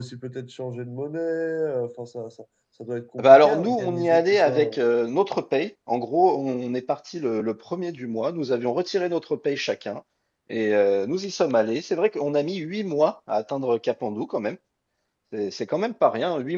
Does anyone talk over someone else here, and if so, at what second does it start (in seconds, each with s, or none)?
3.2 s